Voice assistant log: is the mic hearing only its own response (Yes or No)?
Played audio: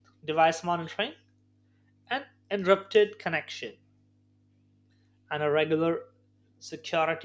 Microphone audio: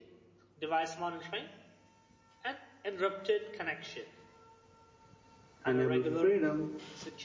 No